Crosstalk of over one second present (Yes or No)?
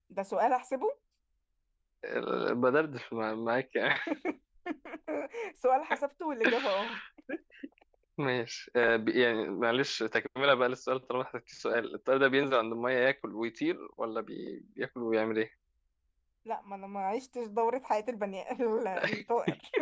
No